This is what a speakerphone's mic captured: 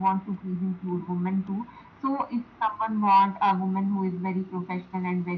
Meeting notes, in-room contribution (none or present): none